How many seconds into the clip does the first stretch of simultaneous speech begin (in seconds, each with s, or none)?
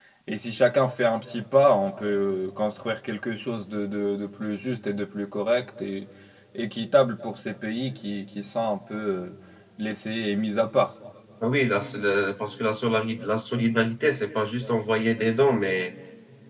none